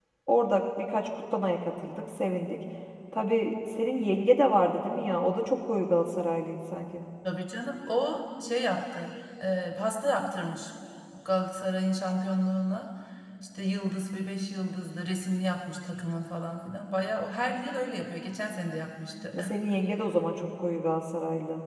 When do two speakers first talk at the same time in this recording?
none

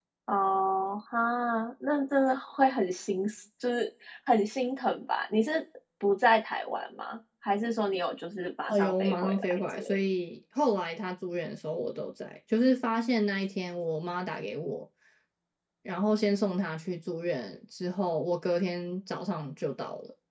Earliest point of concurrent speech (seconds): 8.7 s

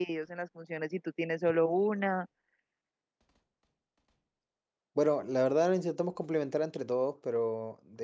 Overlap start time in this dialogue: none

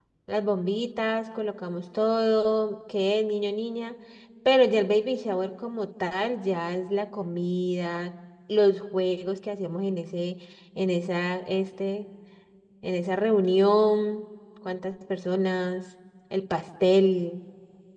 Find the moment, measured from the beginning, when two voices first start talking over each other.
none

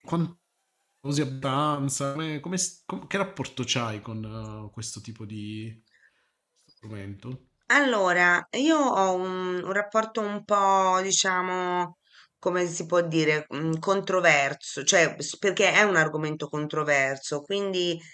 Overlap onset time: none

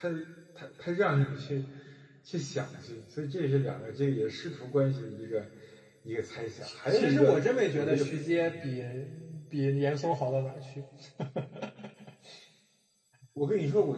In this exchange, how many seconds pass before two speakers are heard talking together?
6.6 s

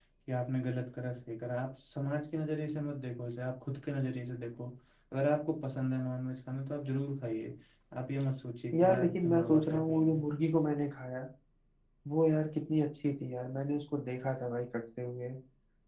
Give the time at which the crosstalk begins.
8.8 s

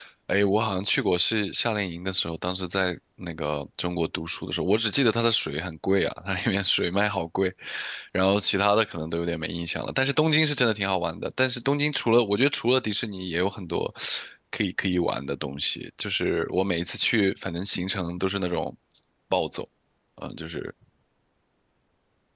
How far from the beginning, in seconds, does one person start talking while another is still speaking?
none

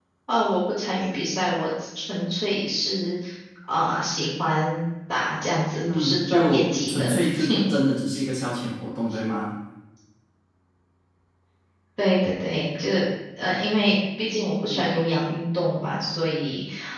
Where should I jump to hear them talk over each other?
5.8 s

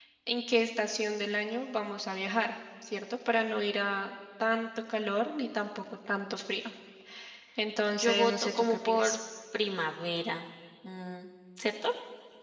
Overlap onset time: 7.9 s

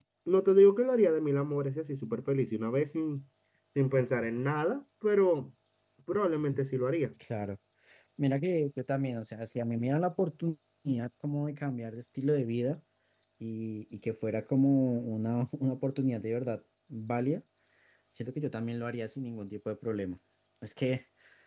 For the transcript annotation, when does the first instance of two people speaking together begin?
none

